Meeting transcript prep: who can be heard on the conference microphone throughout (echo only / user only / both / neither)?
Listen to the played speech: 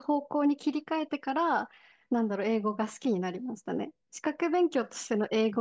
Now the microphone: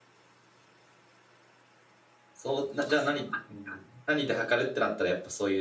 user only